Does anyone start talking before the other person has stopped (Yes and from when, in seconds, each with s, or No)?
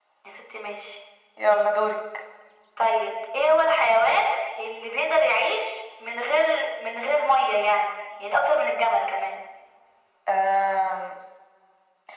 No